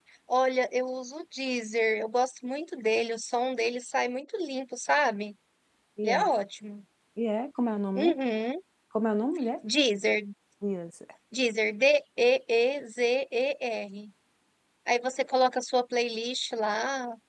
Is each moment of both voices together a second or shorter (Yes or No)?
Yes